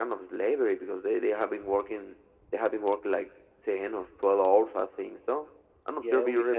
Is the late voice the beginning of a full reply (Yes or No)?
Yes